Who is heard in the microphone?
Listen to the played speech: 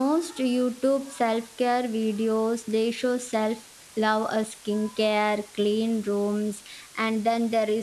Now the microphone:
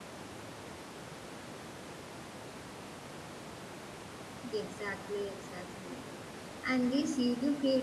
user only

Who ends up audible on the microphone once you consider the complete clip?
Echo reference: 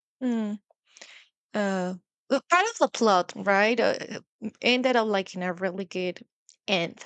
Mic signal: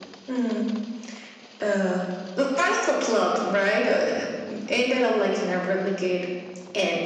echo only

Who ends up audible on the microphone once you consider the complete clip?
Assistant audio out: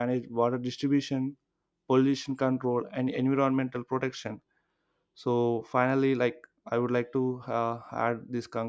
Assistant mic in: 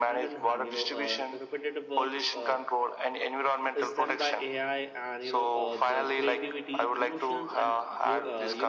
both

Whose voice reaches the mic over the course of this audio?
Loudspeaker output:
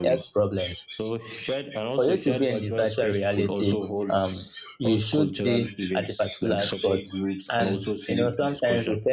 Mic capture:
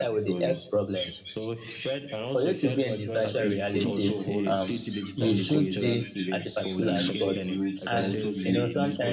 both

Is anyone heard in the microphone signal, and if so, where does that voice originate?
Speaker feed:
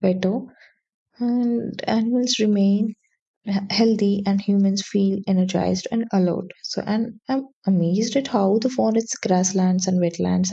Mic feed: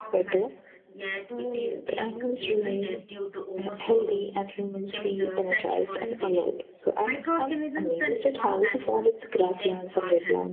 both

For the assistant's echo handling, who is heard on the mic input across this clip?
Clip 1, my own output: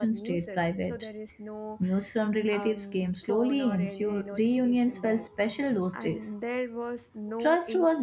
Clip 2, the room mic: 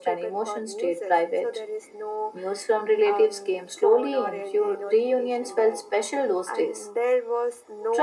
echo only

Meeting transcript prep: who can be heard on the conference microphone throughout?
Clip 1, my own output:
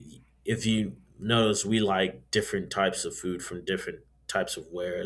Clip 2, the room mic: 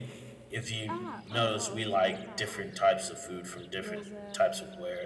both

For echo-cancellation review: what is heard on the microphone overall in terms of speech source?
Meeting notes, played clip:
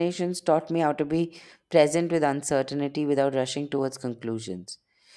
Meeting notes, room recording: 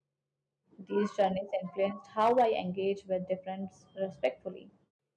user only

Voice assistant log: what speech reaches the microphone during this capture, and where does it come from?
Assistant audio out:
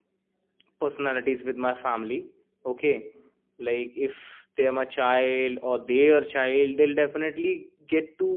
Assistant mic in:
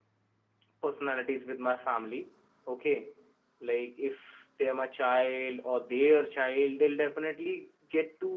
echo only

